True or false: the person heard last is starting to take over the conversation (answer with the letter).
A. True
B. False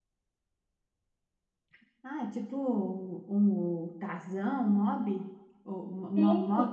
A